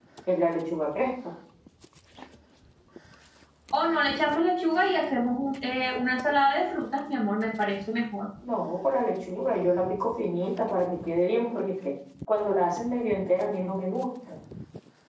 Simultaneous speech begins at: none

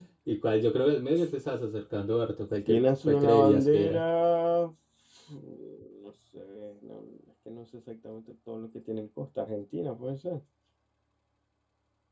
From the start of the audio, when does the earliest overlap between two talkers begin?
2.7 s

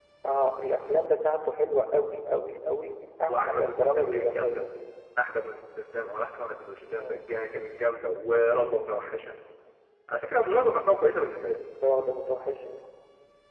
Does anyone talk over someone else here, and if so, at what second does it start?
3.3 s

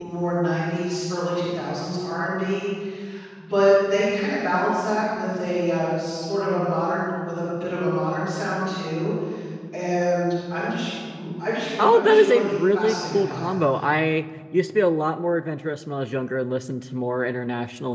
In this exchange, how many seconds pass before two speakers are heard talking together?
11.8 s

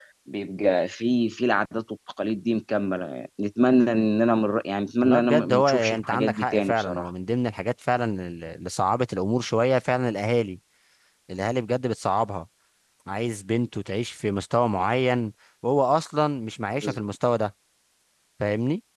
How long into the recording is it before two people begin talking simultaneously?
5.0 s

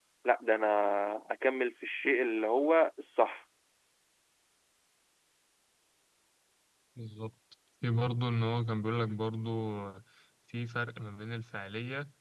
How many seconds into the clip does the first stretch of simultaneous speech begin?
none

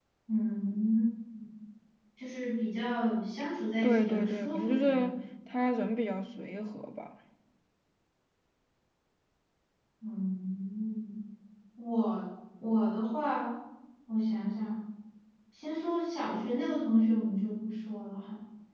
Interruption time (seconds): 3.8 s

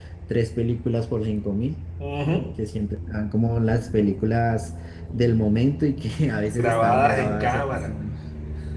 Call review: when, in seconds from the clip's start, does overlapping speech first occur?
6.5 s

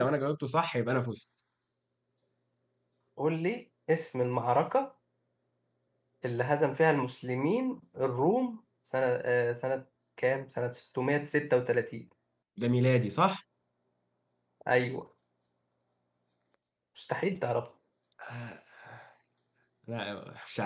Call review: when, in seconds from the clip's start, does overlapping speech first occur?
none

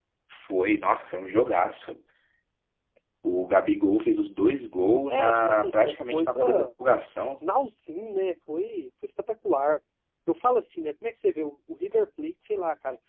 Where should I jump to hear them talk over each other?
5.1 s

